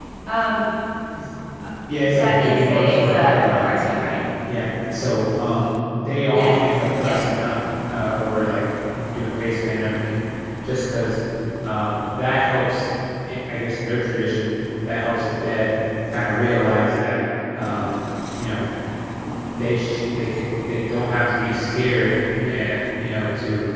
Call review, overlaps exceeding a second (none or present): present